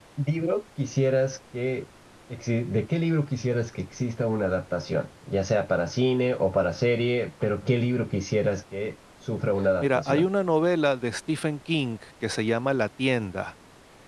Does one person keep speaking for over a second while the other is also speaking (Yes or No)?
No